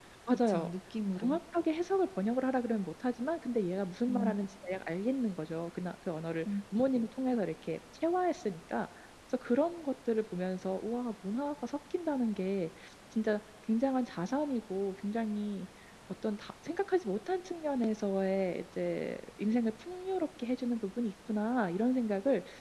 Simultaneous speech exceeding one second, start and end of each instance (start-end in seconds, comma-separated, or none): none